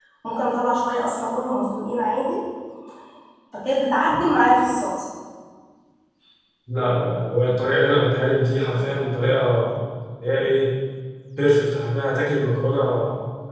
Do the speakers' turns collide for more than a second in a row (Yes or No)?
No